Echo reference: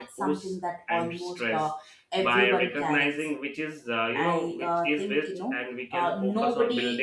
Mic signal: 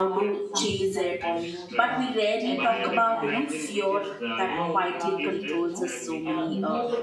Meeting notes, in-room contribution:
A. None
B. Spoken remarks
B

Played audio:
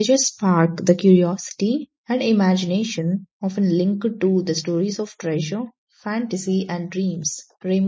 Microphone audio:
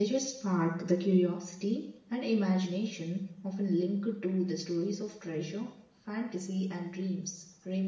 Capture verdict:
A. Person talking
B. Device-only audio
B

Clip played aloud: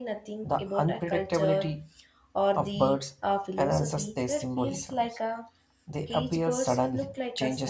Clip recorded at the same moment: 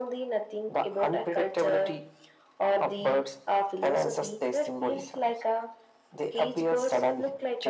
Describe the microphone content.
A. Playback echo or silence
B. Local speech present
A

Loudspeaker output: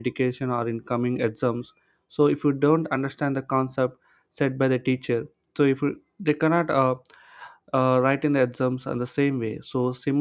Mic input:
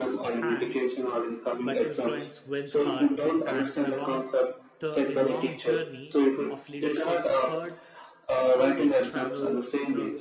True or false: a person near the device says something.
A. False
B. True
B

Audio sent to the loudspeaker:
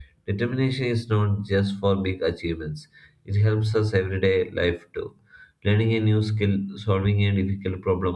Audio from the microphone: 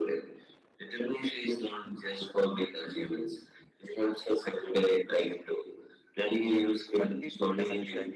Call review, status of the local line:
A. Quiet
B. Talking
B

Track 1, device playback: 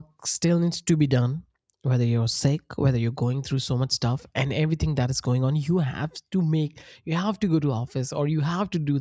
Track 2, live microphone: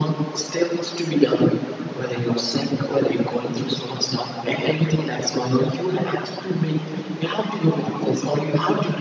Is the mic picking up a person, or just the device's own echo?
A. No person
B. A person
A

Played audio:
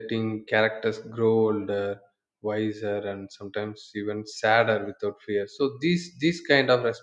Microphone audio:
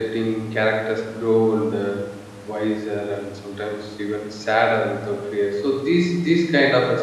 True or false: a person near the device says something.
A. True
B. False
B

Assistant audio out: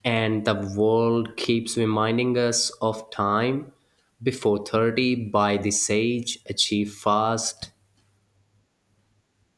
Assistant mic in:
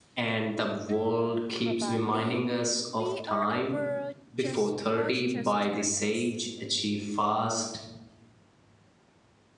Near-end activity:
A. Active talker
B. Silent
A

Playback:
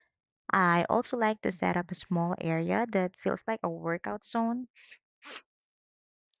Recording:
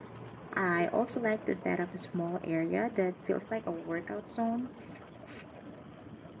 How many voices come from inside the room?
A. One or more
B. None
B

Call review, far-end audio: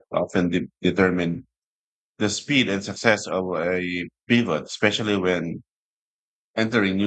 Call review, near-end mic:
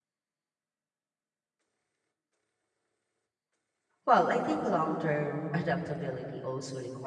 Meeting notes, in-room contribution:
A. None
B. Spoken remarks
B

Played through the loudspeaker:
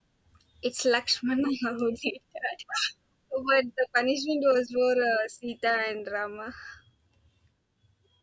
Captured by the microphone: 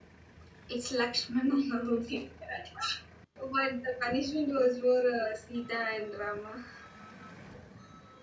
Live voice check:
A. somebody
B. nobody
B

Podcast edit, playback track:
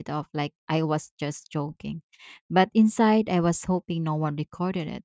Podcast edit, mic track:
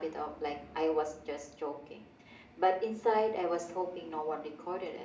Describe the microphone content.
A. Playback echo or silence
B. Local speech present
A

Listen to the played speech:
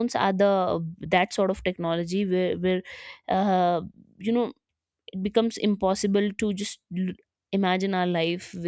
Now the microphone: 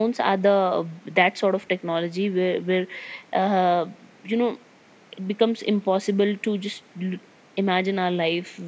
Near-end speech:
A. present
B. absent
B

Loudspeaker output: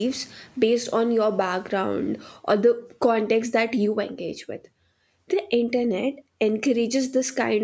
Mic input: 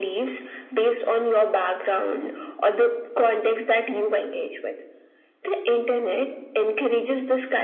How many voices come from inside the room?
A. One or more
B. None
B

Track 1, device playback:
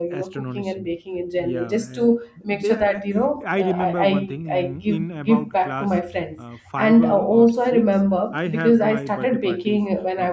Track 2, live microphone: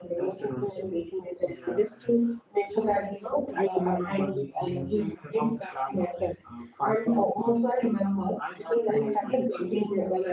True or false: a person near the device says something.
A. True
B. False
B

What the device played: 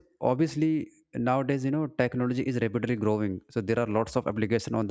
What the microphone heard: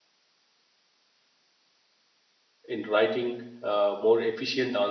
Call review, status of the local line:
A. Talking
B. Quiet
A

